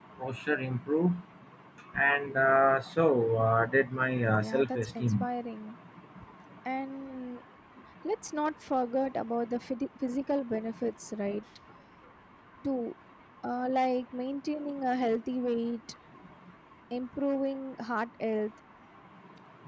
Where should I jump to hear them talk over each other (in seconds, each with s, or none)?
3.9 s